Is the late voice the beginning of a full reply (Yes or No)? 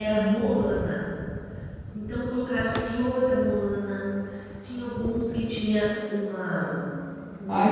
Yes